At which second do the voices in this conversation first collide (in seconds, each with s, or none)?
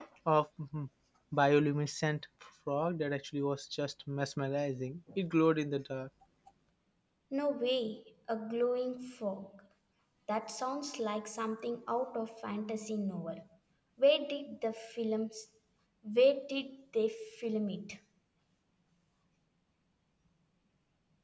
none